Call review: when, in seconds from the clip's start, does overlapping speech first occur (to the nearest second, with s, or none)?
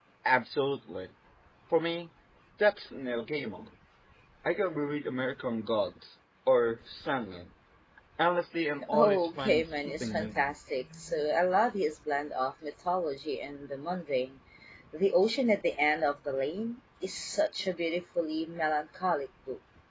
9 s